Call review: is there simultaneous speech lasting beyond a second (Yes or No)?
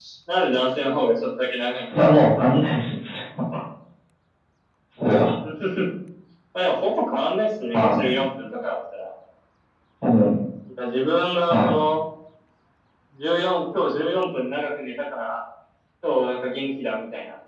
No